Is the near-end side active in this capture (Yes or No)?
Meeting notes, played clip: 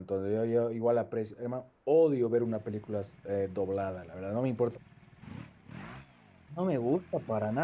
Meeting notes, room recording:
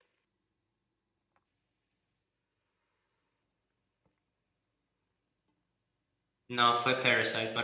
Yes